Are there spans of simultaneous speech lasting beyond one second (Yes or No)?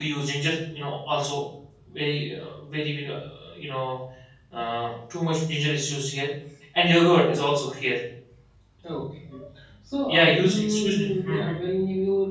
Yes